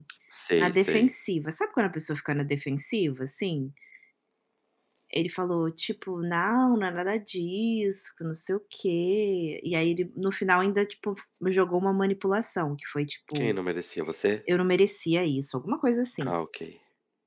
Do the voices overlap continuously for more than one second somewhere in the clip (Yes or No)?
No